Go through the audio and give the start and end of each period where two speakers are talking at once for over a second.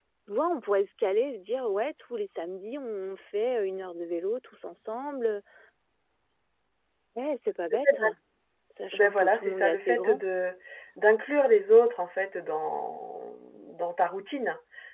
8.9-10.2

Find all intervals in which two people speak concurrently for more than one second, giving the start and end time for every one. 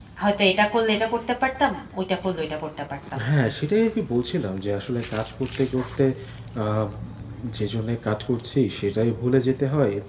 none

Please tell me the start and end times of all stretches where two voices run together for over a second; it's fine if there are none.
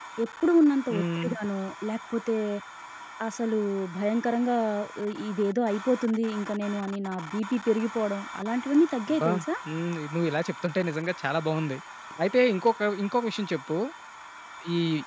none

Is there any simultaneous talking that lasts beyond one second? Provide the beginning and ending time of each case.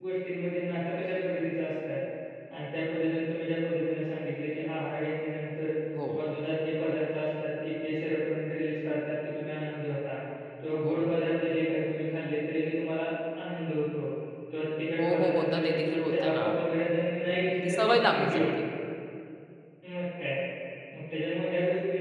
15.0-16.4, 17.3-18.7

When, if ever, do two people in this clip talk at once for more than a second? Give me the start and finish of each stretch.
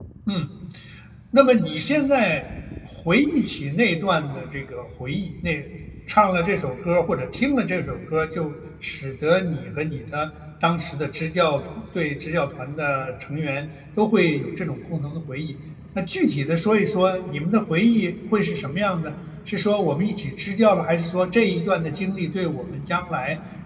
none

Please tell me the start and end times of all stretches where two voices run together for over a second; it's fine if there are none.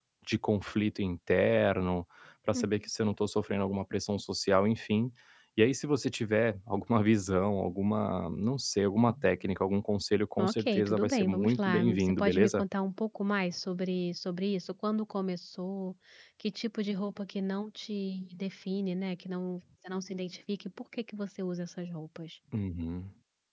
10.4-12.6

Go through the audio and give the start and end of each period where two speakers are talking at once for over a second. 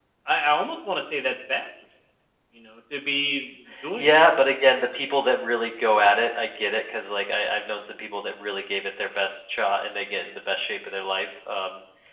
none

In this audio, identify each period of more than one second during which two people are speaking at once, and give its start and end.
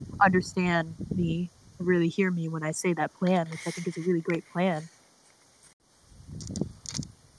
none

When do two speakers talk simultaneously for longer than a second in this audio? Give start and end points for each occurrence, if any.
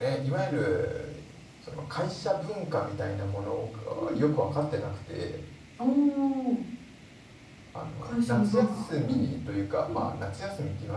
8.0-9.2

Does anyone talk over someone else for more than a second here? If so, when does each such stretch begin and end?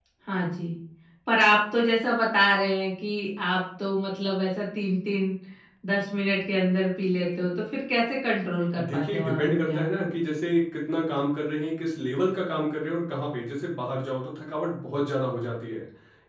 8.8-10.1

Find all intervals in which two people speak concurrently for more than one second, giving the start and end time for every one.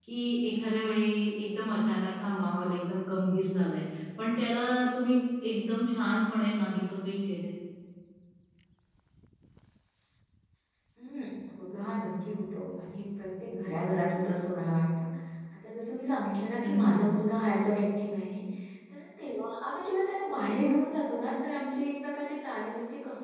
none

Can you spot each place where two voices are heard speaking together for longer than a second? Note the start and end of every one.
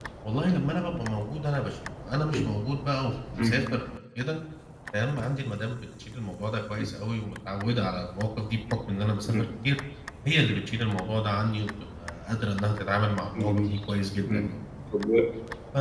none

